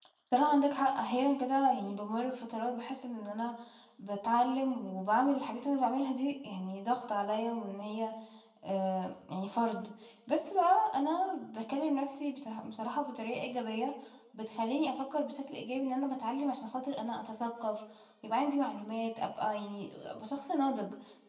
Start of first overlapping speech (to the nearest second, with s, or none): none